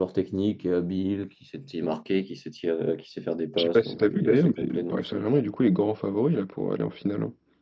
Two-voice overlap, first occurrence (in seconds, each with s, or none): 3.6 s